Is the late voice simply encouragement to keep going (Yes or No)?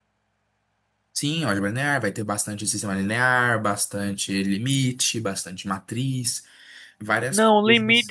No